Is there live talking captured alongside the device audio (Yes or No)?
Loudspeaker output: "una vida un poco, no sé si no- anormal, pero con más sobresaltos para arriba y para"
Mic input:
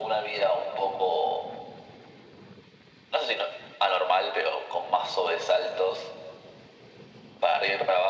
No